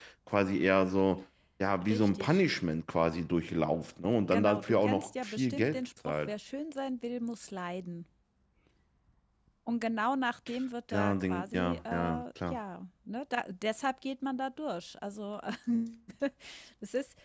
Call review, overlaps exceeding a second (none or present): present